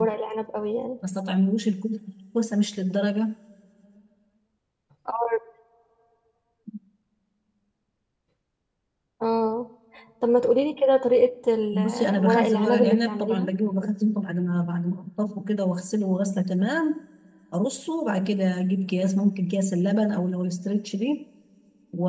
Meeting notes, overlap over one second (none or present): present